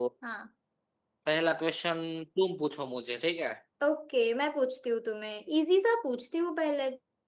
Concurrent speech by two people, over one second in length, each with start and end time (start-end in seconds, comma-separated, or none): none